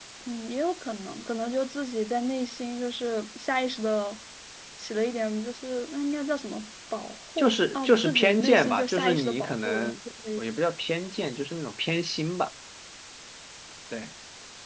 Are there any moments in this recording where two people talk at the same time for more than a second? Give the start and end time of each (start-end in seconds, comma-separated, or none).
7.4-9.9